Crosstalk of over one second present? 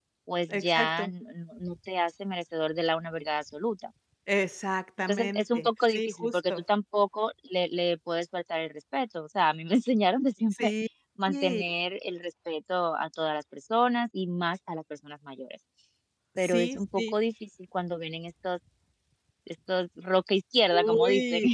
Yes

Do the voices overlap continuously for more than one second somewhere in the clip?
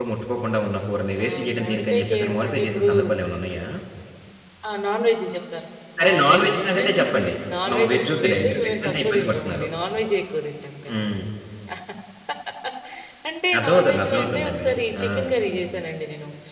Yes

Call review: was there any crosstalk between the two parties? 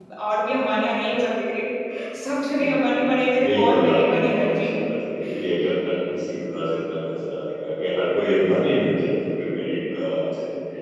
Yes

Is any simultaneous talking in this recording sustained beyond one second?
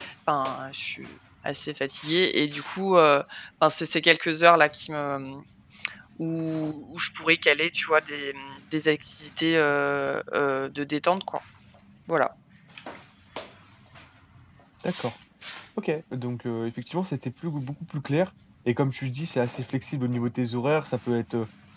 No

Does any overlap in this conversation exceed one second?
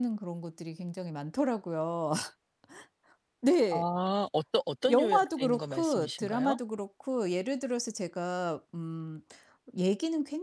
Yes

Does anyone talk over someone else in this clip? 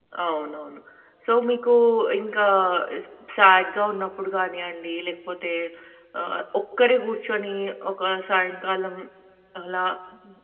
No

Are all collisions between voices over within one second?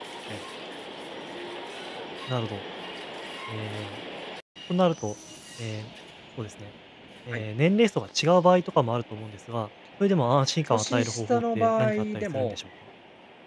No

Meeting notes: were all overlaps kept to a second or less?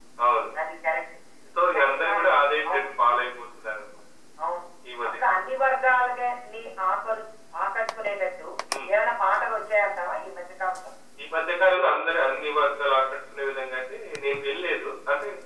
Yes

